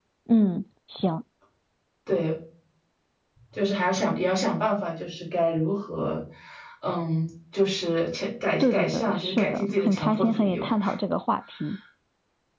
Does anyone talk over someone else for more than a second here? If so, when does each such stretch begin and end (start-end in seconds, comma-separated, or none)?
8.6-10.7